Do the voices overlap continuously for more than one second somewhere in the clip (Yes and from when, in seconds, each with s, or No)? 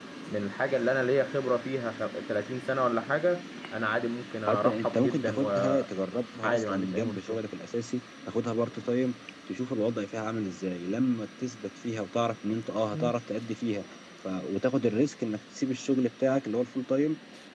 Yes, from 4.5 s